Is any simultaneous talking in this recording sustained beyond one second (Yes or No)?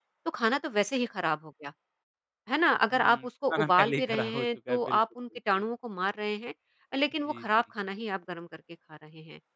Yes